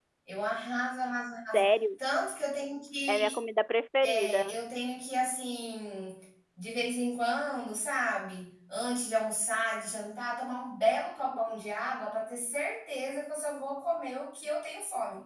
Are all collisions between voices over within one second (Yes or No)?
Yes